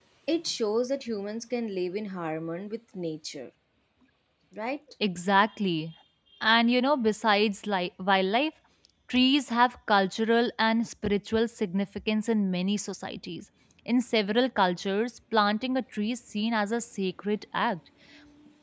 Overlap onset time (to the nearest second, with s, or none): none